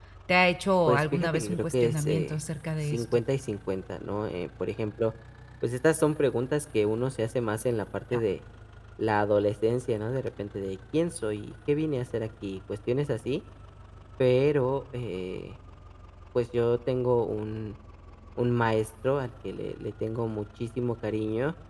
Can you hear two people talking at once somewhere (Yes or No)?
Yes